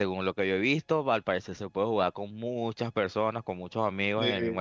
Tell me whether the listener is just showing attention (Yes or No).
No